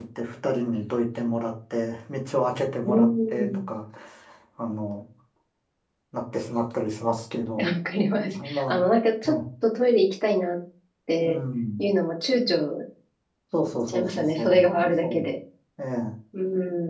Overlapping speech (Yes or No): Yes